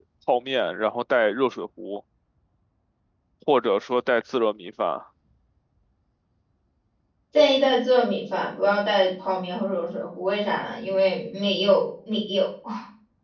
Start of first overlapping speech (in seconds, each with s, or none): none